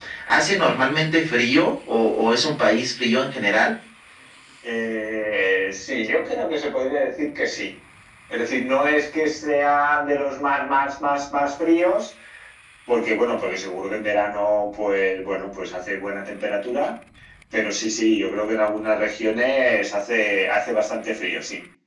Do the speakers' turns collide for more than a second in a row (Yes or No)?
No